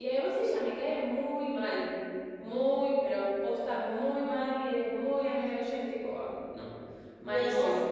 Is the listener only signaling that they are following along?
No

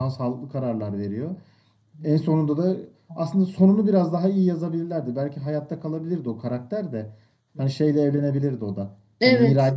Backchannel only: Yes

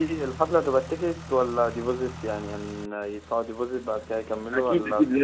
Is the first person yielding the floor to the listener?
Yes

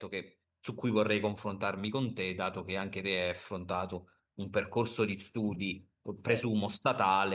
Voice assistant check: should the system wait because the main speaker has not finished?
Yes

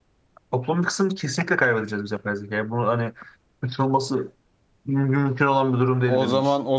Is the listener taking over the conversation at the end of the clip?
Yes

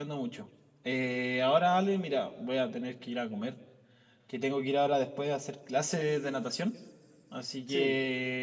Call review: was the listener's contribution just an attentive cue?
Yes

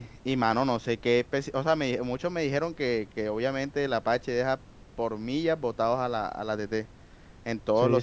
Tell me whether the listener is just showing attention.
No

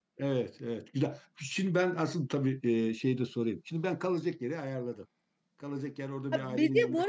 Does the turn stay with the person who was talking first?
No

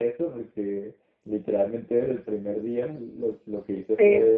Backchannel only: Yes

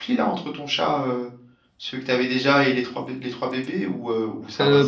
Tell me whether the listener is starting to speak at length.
Yes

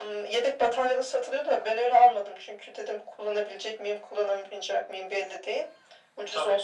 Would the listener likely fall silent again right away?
Yes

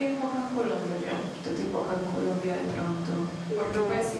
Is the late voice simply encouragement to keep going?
Yes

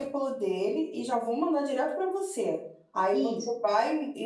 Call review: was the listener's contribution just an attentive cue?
Yes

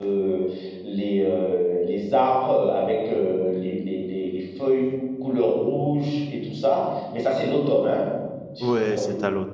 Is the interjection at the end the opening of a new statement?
Yes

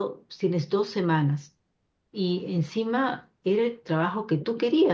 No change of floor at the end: Yes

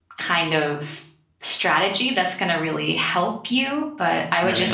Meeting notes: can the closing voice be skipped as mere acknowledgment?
Yes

